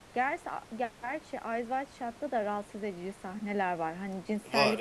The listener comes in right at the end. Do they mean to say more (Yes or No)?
No